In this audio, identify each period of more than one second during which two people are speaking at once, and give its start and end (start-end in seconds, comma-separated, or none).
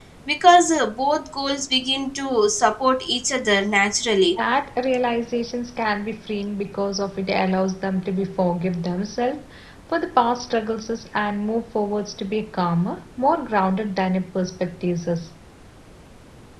none